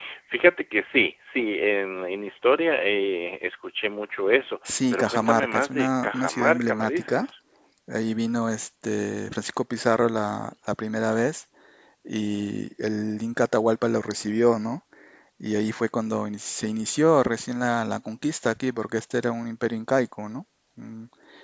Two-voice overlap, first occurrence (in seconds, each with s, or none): 4.9 s